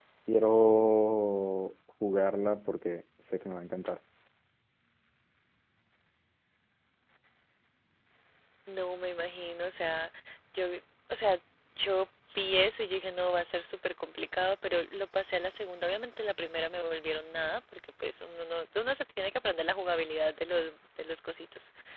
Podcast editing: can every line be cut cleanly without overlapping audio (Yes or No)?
Yes